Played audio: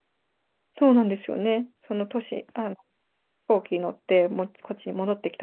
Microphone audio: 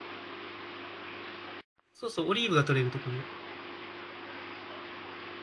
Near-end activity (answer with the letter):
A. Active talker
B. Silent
A